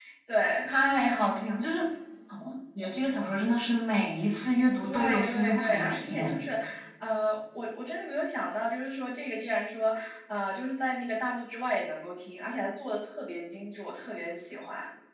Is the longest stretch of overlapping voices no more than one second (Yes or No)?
No